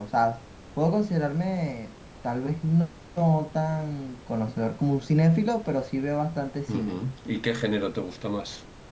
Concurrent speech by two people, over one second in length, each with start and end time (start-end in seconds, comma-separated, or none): none